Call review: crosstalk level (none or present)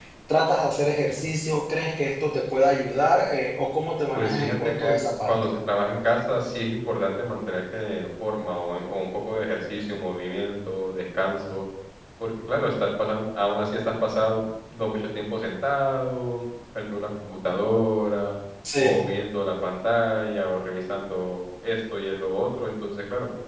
present